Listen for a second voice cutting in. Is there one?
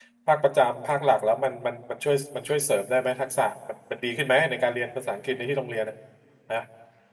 No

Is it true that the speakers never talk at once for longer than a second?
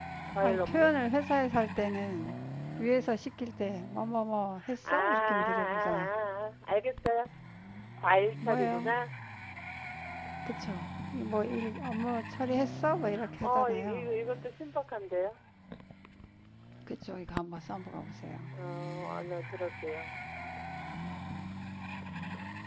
No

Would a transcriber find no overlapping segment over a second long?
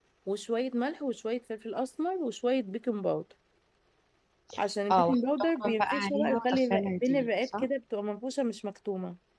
No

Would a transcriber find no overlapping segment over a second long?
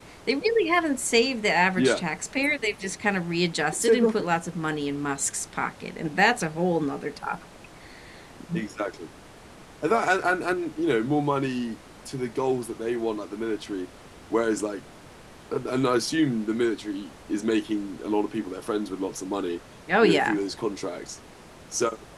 Yes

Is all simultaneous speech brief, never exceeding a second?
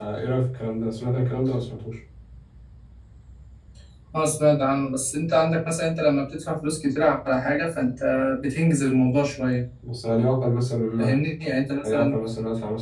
Yes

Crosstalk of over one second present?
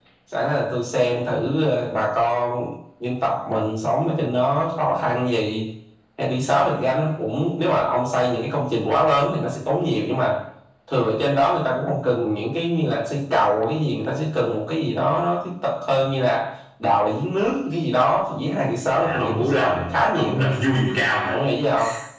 Yes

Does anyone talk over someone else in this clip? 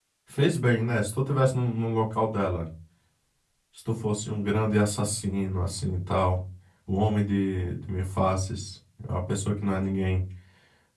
No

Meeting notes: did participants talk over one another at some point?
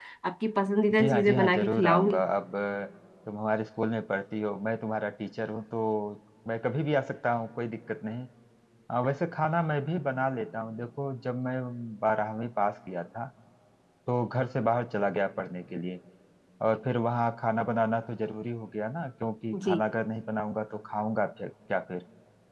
Yes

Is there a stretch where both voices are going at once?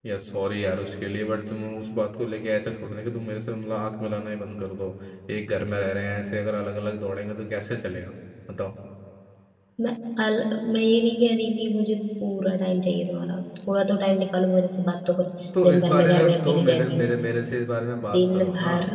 Yes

